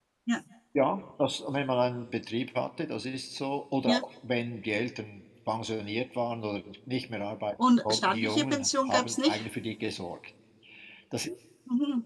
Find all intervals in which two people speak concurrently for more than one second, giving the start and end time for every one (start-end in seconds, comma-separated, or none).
7.8-9.5